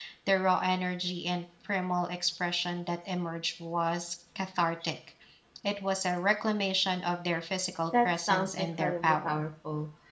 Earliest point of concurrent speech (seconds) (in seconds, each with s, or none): 7.9 s